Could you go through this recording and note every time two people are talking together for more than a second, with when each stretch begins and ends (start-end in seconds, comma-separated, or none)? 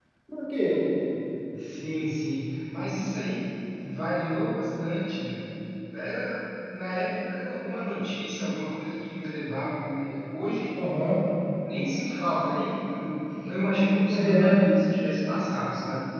none